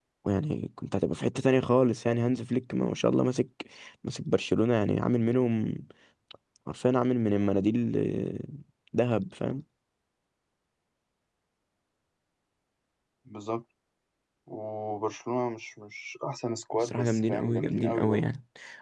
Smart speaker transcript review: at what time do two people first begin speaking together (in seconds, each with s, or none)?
16.8 s